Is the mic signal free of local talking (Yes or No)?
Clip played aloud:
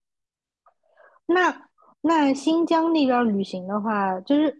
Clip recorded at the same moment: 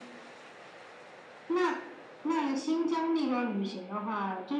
Yes